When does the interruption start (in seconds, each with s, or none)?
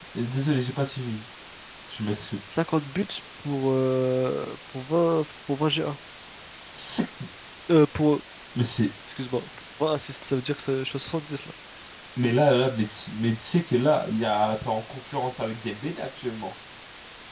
none